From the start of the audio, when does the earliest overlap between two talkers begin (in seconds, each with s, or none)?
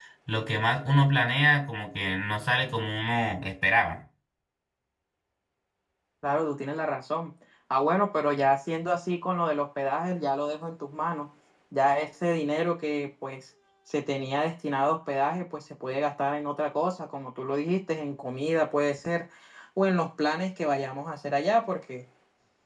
none